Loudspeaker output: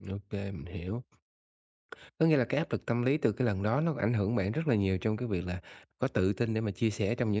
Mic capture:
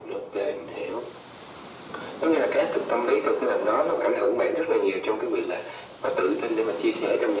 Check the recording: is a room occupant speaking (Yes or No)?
No